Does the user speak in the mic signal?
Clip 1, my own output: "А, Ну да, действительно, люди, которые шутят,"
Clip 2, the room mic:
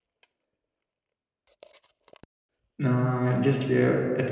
Yes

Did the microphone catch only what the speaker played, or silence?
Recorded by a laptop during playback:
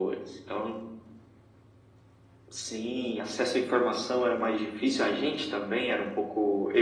Yes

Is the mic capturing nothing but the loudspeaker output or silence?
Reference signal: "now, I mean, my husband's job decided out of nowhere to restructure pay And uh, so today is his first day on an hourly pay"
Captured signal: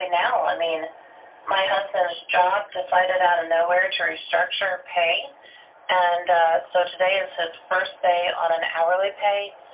Yes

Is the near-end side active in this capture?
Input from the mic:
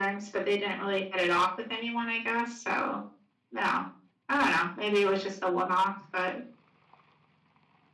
No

